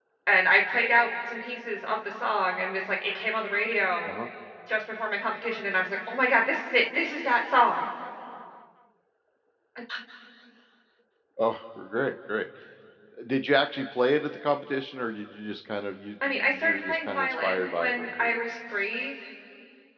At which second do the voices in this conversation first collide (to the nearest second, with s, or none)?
16 s